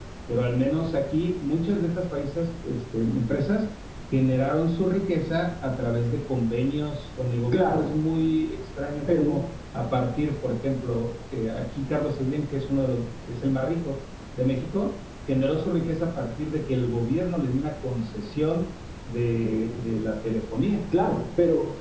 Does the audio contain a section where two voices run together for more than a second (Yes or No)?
No